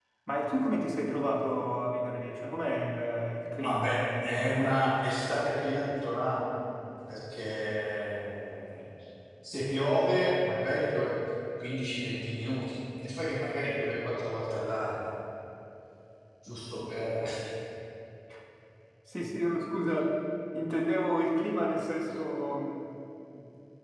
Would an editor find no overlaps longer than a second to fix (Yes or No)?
No